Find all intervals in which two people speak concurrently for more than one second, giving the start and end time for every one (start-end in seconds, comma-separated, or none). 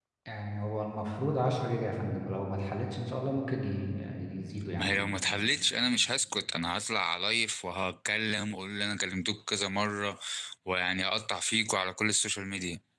none